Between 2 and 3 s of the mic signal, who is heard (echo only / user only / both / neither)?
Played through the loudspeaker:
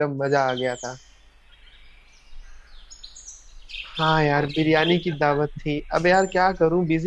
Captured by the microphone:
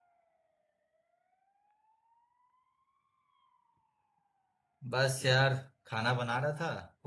neither